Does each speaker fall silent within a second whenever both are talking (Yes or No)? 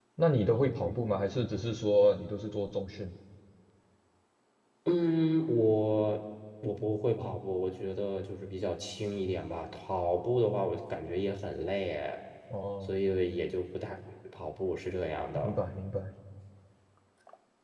Yes